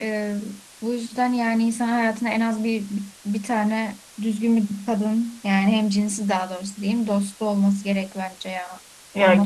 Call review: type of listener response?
taking over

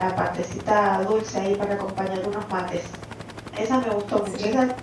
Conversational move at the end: listening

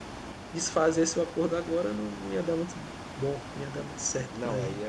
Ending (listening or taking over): taking over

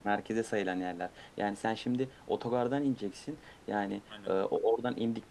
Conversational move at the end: listening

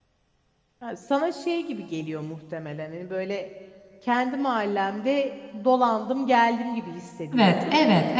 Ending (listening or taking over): taking over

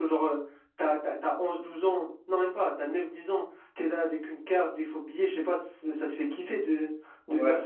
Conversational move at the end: listening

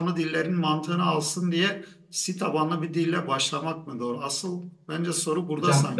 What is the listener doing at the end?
taking over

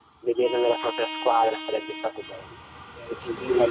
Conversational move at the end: listening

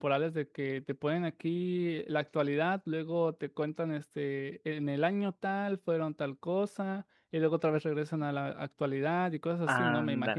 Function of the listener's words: taking over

